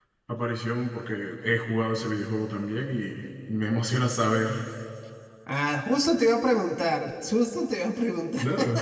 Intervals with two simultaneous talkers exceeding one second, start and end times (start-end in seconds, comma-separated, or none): none